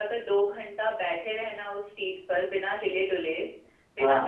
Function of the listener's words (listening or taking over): listening